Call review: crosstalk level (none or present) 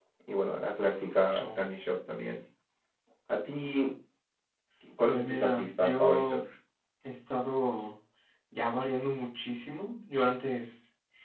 present